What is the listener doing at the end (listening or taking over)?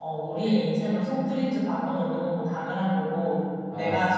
listening